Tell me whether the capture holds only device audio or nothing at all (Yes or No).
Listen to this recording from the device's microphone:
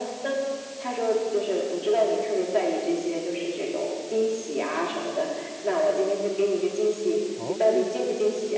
No